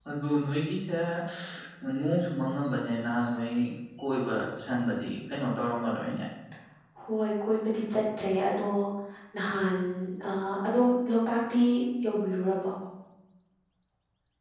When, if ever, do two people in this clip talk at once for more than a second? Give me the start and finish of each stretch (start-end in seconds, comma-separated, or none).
none